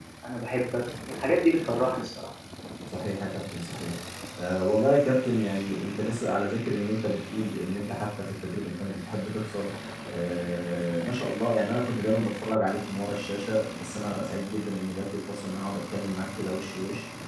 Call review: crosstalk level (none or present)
none